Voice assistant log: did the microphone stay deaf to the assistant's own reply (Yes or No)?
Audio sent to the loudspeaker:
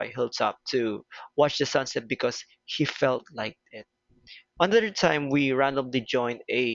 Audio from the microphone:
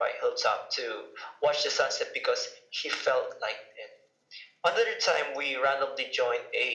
No